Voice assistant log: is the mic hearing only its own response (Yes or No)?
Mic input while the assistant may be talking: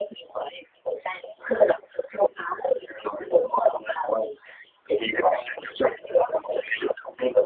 Yes